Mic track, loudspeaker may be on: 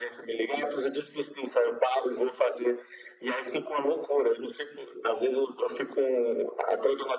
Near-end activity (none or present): none